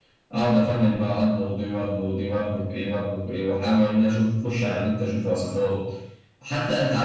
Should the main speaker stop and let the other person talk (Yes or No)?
No